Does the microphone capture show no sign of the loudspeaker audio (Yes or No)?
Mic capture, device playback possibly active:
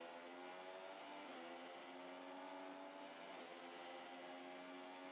Yes